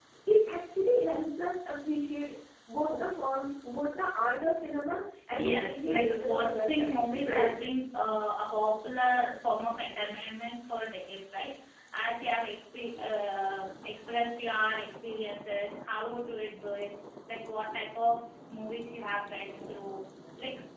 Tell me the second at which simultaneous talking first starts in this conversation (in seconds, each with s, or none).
5.4 s